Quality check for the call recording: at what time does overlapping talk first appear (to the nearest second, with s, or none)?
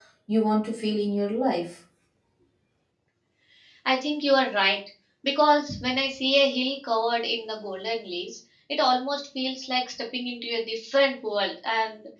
none